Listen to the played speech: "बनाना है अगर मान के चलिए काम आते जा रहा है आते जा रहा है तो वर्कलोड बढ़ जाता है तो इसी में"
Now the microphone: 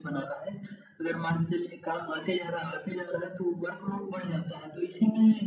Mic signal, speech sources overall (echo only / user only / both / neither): echo only